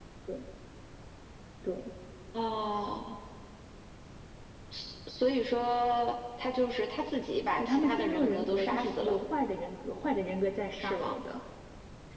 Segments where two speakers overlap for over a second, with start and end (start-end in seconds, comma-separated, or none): 7.6-9.2